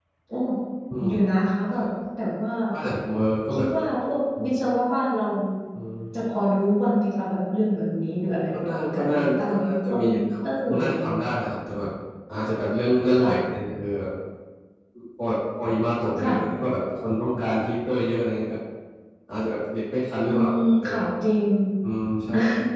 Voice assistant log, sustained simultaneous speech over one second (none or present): present